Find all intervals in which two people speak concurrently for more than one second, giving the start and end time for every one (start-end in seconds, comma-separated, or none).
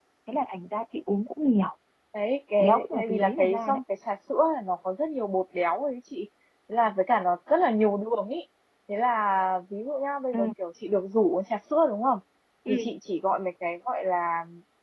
2.6-3.8